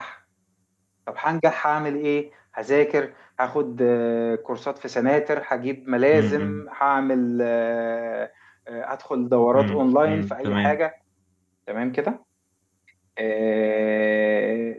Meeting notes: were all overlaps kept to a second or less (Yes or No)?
No